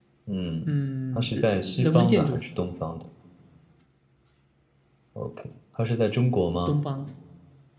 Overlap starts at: 1.2 s

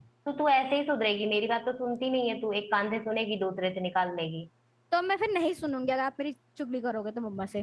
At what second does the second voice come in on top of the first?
none

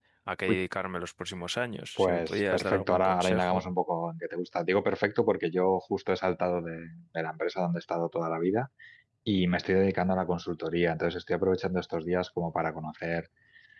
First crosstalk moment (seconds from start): 1.9 s

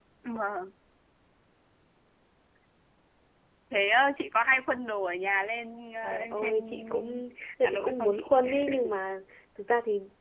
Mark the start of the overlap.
6.0 s

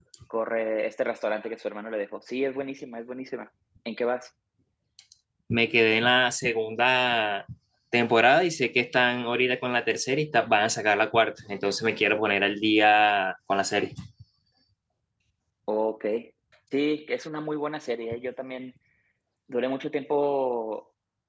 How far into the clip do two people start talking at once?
none

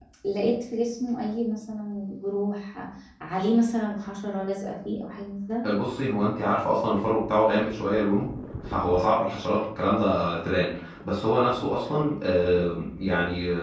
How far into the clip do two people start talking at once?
none

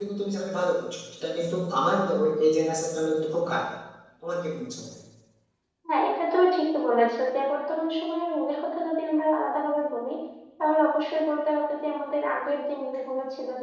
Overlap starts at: none

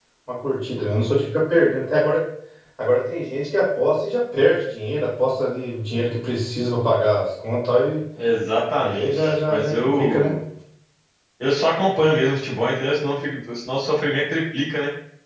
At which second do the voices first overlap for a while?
8.8 s

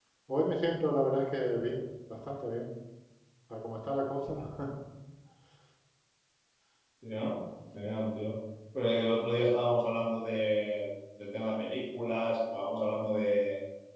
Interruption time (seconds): none

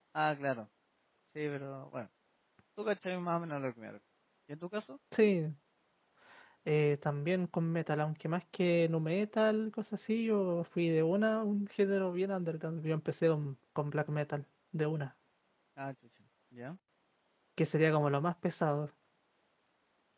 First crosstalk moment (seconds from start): none

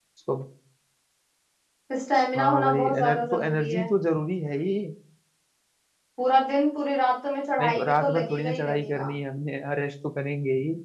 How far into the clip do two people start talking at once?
2.4 s

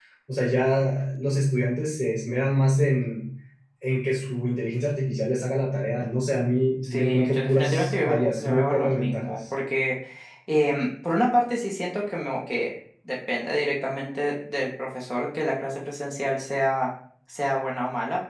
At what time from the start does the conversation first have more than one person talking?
6.8 s

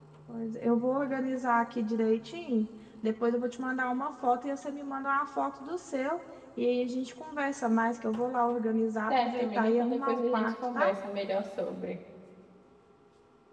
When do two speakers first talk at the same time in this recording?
9.1 s

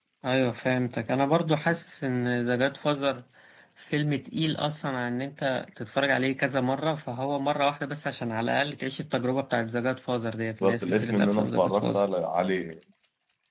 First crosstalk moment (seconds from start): 10.6 s

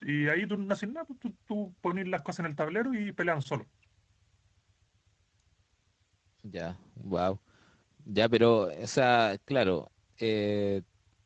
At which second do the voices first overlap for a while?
none

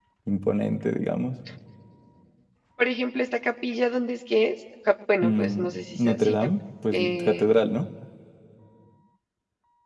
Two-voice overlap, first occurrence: 5.2 s

